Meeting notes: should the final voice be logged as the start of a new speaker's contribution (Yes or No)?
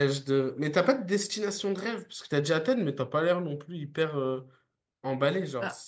No